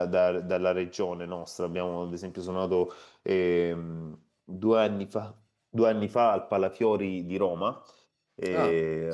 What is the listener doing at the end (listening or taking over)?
listening